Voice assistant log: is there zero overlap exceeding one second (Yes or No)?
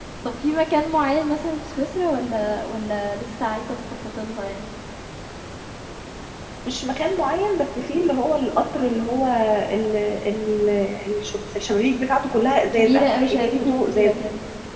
No